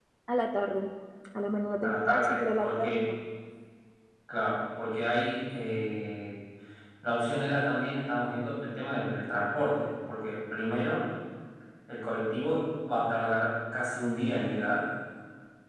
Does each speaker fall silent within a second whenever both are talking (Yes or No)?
No